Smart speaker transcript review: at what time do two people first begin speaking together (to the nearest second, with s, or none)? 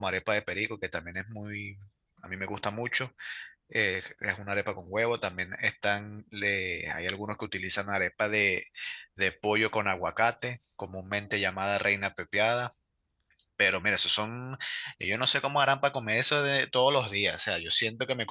none